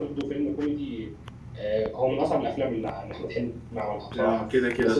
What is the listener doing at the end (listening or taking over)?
taking over